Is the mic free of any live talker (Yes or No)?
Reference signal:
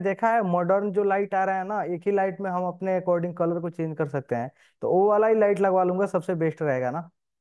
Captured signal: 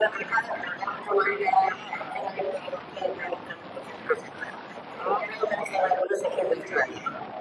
Yes